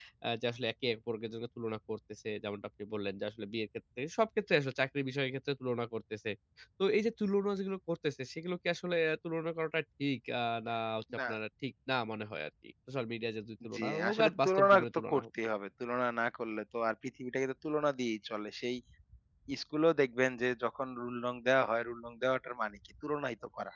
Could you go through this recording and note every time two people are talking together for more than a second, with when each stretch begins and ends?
13.7-15.2

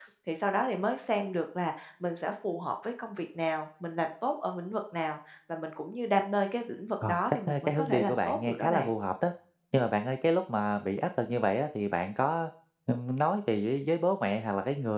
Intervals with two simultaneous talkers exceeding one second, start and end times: 7.1-8.9

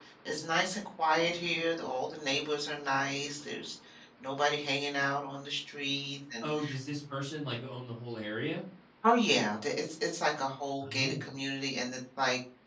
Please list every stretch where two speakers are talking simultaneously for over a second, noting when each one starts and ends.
none

